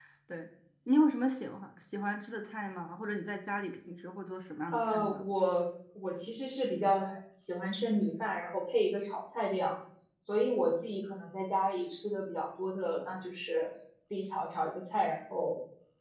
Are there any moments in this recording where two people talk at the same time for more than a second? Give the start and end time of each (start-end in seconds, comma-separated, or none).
none